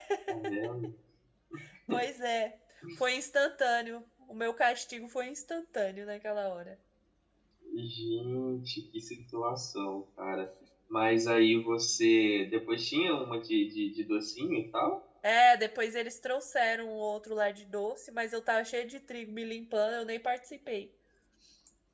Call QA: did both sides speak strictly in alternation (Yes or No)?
Yes